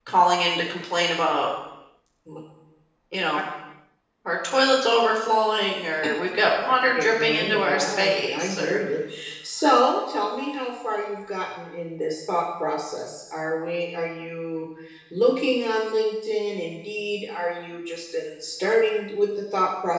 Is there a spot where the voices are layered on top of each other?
Yes, from 6.9 s

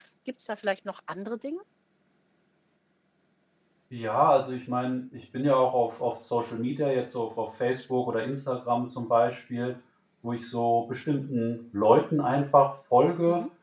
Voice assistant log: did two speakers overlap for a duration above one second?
No

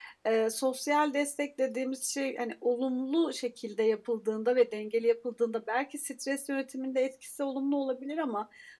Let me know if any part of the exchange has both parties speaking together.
No

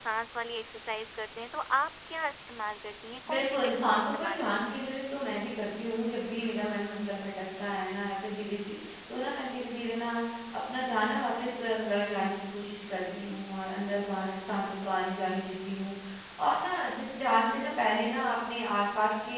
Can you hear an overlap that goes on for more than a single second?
Yes, from 3.3 s

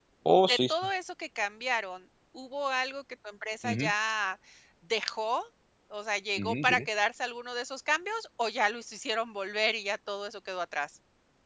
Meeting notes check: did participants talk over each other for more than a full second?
No

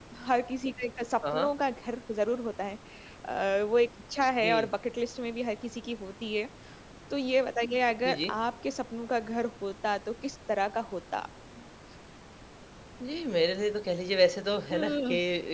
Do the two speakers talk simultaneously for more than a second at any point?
No

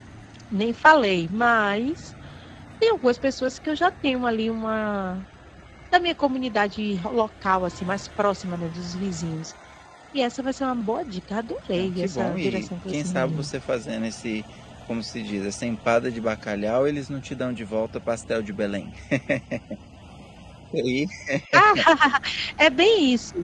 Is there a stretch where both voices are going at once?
Yes, from 11.8 s

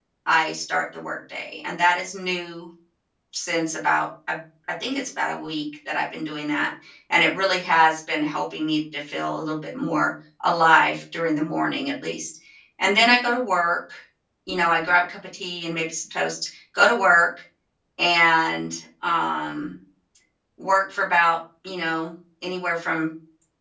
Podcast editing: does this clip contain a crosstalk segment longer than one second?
No

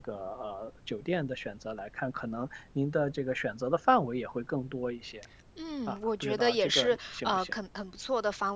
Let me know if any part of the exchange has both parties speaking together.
Yes, from 5.9 s

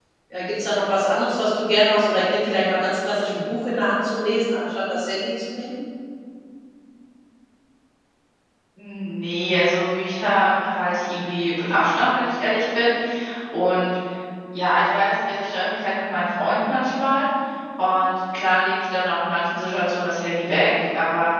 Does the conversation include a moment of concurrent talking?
No

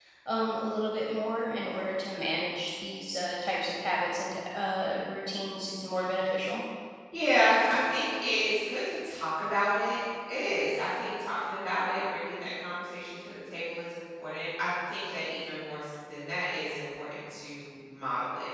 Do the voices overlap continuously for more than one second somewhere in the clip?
No

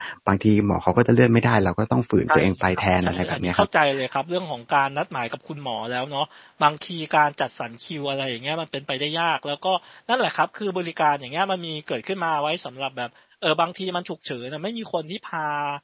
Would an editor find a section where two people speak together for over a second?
Yes, from 2.3 s

